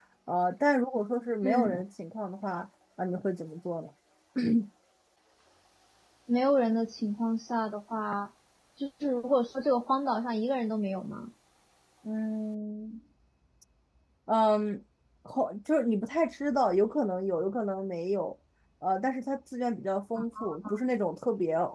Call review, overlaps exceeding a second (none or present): none